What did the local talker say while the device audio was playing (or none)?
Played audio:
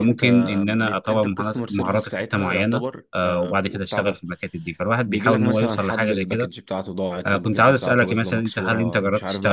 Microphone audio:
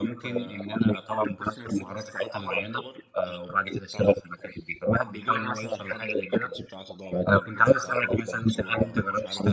none